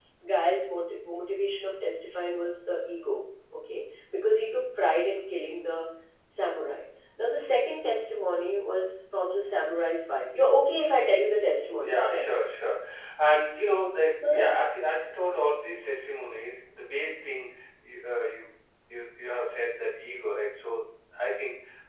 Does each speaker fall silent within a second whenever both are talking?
Yes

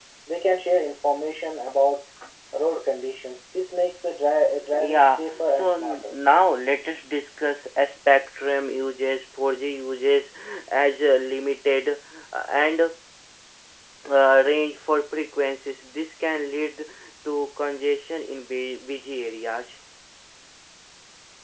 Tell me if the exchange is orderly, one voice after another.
No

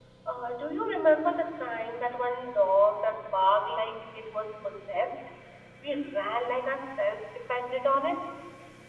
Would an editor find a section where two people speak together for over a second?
No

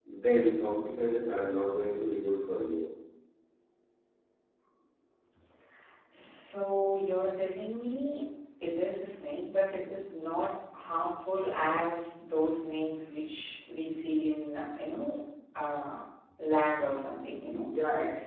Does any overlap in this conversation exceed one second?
No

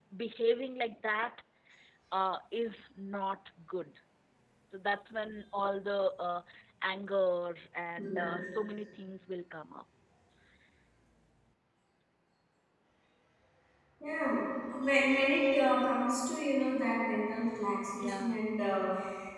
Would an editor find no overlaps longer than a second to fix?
Yes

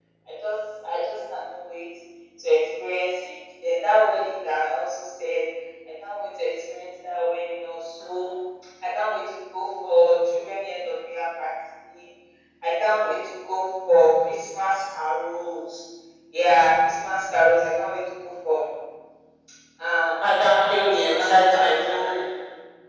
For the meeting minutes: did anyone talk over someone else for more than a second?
Yes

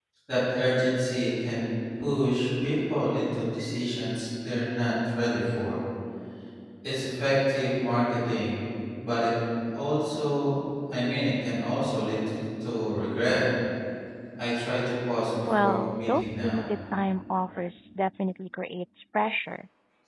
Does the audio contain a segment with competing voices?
Yes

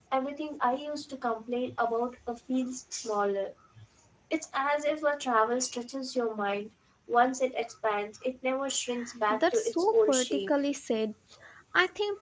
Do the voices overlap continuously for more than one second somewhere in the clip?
Yes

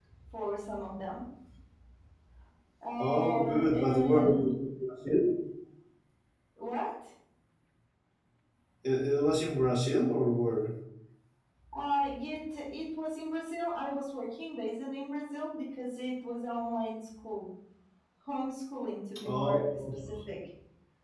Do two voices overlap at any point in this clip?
Yes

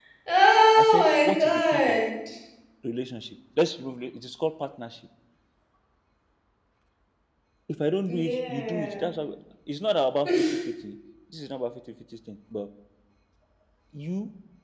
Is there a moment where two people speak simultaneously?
Yes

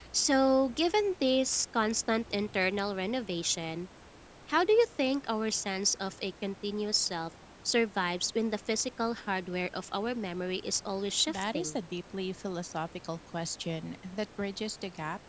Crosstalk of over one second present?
No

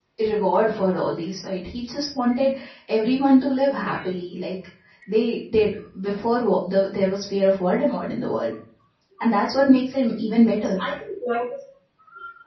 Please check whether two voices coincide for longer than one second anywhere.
No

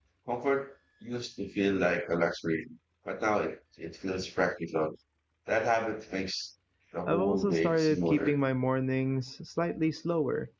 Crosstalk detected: Yes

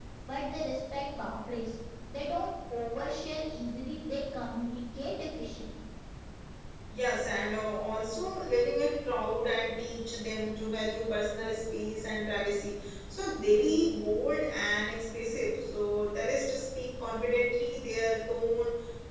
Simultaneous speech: No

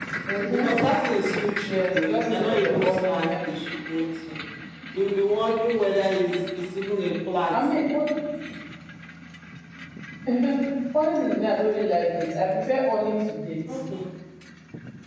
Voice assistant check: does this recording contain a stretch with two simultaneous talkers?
Yes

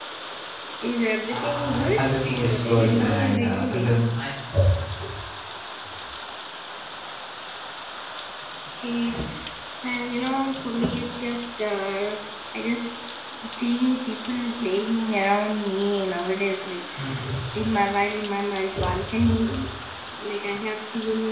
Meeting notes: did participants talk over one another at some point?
Yes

